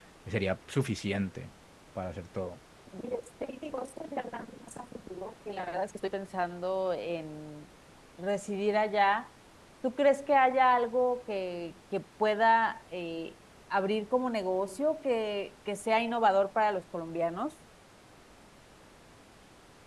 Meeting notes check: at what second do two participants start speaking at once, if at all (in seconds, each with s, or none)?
none